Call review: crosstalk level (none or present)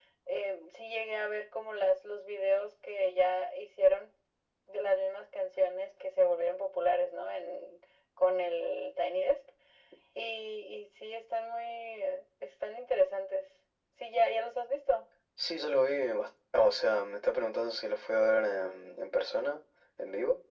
none